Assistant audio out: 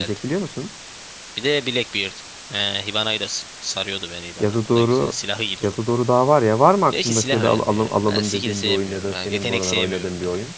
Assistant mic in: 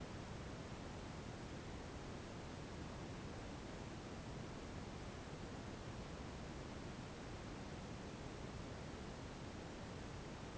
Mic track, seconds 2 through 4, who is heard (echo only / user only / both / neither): neither